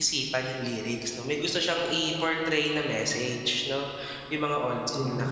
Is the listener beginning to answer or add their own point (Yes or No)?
No